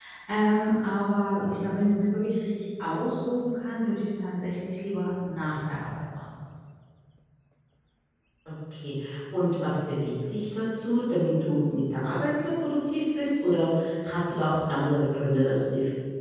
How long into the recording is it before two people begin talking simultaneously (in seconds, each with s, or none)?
none